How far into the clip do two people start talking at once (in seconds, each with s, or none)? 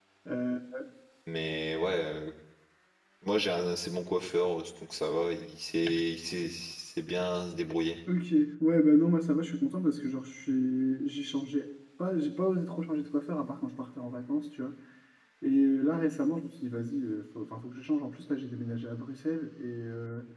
none